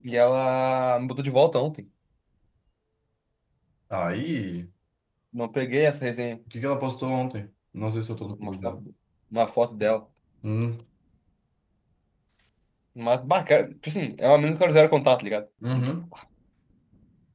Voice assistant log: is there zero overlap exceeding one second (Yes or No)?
Yes